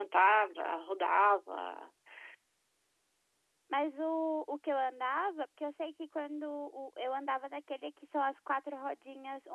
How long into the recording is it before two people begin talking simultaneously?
none

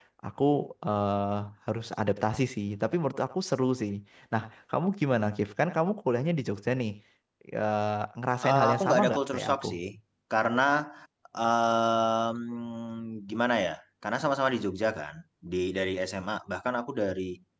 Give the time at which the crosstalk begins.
8.4 s

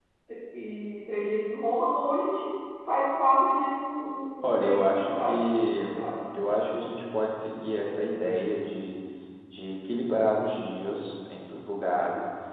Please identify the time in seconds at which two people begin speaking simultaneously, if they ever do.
4.4 s

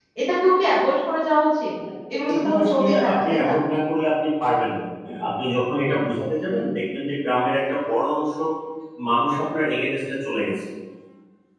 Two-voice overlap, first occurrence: 2.3 s

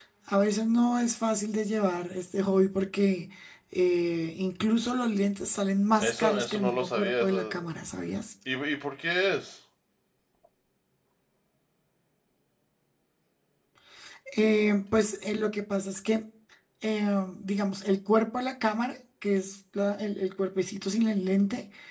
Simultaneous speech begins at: 6.0 s

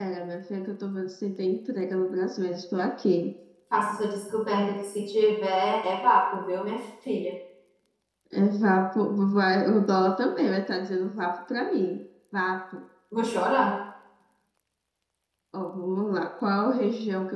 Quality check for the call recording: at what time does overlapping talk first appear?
none

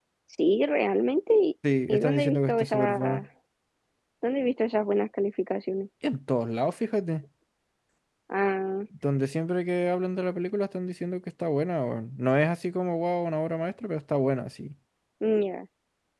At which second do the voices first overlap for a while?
1.9 s

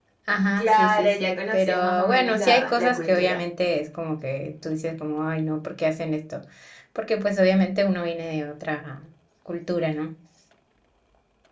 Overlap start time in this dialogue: 0.6 s

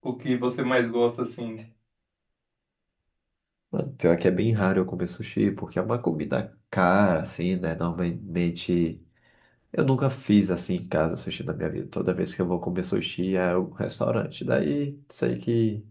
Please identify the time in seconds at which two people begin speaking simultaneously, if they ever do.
none

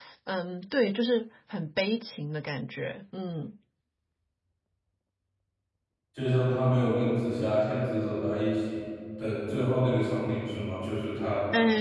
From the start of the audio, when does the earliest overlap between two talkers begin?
none

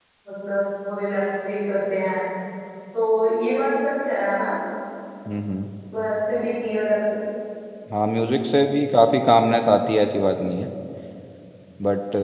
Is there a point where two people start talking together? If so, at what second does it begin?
none

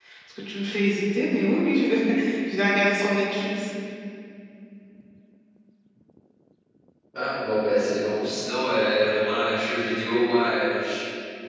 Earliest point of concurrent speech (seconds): none

